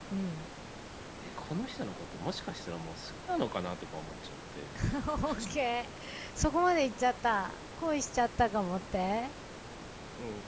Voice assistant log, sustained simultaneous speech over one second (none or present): none